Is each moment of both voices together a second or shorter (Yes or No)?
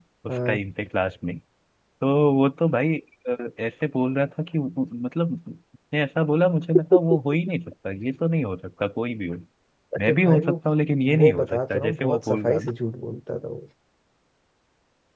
No